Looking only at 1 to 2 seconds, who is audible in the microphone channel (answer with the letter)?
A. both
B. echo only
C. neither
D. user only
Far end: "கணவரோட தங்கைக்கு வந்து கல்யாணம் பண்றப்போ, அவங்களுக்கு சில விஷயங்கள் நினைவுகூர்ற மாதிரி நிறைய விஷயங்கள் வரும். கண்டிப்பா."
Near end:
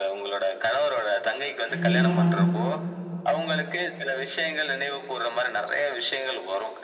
A